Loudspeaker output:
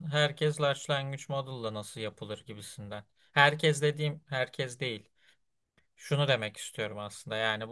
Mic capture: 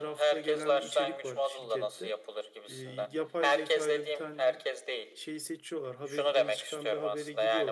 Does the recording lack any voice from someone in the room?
No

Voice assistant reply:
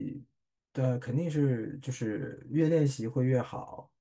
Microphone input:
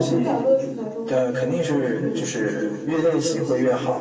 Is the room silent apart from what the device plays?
No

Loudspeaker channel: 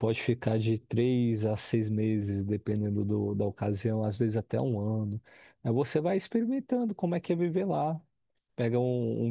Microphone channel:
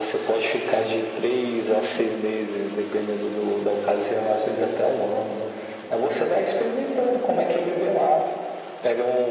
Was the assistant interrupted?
No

